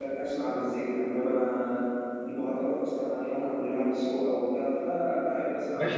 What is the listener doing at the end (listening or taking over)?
taking over